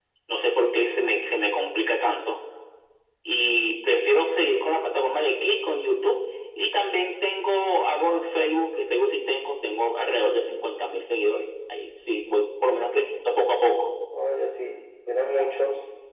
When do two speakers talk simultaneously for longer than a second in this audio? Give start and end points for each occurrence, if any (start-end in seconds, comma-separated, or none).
none